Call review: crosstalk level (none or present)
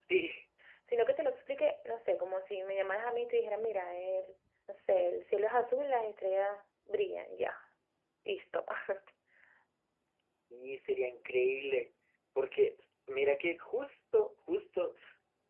none